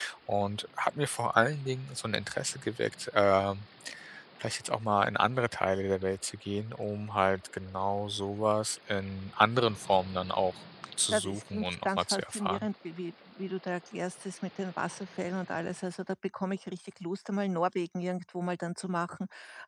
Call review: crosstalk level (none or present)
present